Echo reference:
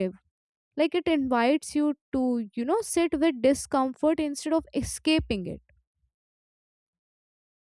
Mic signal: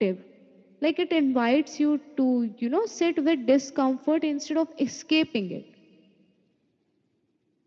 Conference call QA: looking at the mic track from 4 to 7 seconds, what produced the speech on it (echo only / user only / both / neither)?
echo only